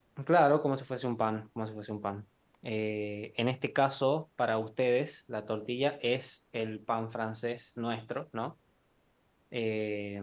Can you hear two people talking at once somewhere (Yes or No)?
No